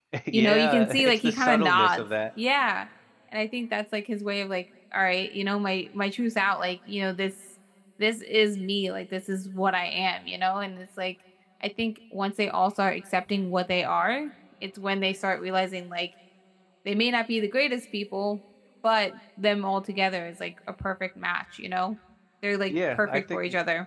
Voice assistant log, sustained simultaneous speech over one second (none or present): present